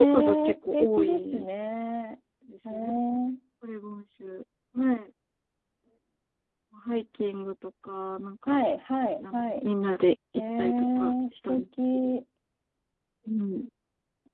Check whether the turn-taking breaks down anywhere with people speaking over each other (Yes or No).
Yes